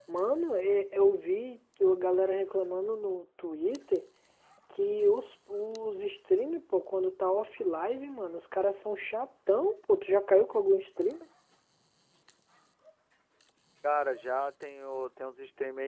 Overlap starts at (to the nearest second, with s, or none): none